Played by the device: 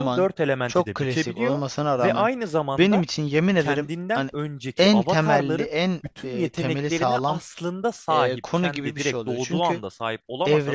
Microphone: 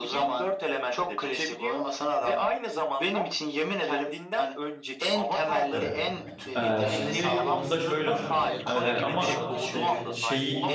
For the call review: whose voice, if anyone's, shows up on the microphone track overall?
both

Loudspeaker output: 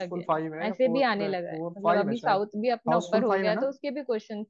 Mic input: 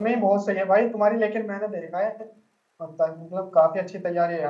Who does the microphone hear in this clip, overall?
user only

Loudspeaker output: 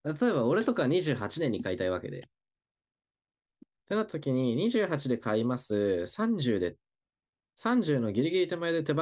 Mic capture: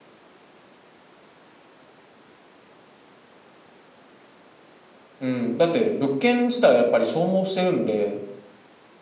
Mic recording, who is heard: user only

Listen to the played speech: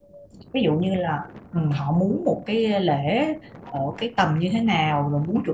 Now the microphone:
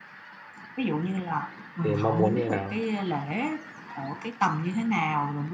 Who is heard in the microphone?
both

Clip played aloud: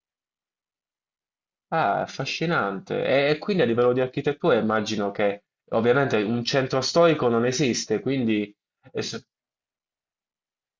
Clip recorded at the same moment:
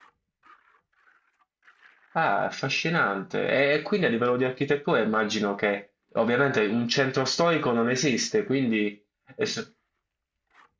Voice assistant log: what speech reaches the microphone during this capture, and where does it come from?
echo only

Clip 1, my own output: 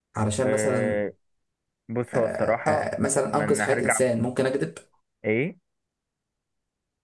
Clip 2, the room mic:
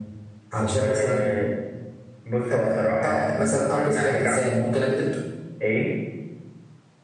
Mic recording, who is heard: echo only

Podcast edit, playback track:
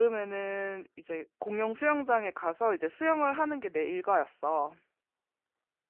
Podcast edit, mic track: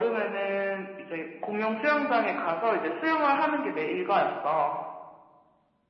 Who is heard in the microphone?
echo only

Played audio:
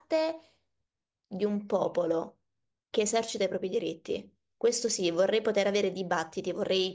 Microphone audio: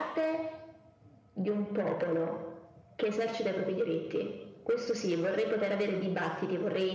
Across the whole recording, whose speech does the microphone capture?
echo only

